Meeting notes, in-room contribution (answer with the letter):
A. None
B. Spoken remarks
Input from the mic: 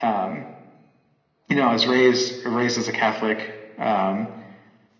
A